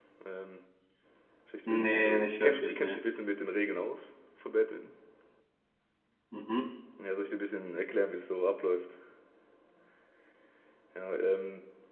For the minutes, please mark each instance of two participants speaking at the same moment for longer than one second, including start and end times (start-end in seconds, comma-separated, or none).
1.7-3.0